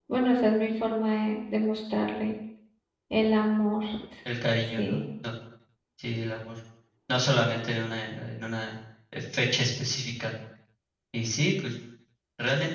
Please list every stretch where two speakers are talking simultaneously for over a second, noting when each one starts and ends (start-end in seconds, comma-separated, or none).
none